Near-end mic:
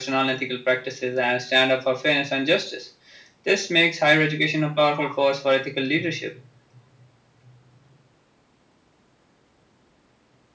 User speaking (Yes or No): No